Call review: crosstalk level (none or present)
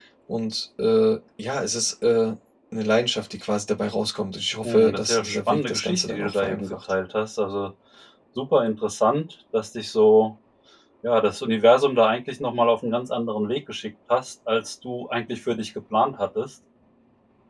present